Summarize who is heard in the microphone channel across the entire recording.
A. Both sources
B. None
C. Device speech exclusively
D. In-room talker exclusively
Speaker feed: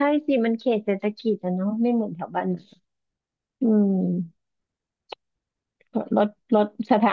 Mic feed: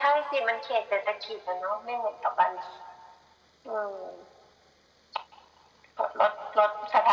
C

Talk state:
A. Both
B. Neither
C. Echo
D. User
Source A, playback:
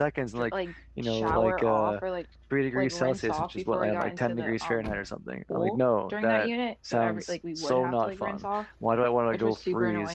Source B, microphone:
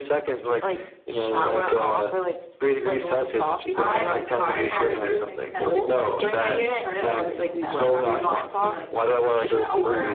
A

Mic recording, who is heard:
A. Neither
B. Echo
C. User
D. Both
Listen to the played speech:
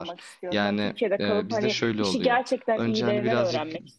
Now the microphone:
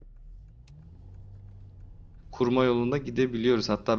C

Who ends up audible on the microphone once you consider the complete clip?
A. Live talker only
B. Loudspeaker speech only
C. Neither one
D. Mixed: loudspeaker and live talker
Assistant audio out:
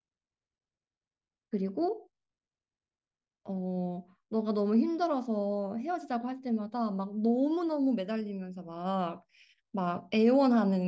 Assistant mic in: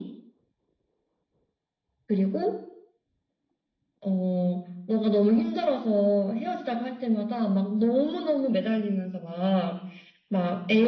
B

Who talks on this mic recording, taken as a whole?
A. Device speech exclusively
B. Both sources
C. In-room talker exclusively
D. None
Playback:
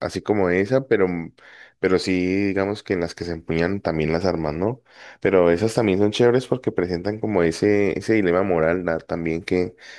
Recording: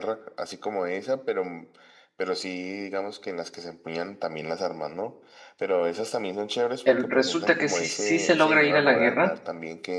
B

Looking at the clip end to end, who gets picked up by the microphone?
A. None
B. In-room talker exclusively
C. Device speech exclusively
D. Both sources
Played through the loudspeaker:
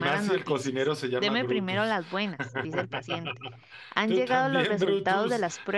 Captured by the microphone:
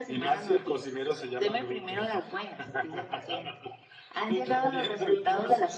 C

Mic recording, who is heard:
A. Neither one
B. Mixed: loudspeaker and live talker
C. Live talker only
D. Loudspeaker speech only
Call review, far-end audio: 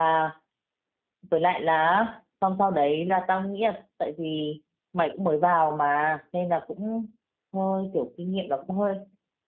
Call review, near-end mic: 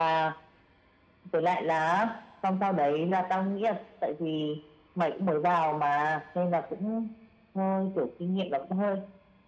D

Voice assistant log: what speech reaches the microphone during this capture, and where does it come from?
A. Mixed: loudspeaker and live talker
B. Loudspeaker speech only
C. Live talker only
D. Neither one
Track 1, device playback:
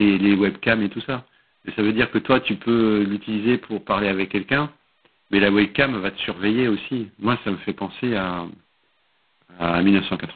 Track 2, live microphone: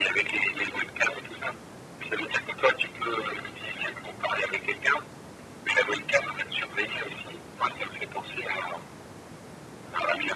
B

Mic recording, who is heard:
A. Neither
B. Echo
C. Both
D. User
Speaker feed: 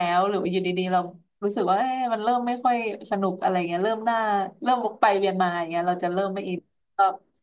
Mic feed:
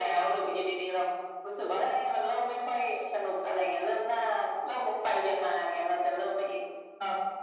B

